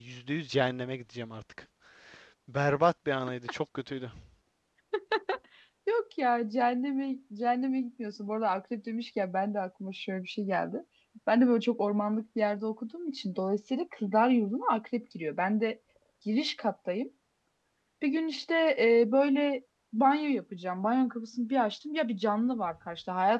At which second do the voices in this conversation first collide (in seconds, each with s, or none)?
none